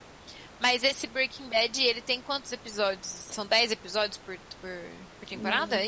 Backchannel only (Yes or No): No